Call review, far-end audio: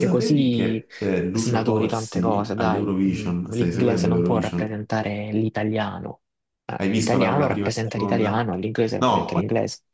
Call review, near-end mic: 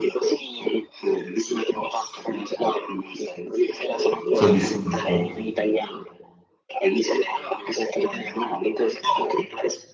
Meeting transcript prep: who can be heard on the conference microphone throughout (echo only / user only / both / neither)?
both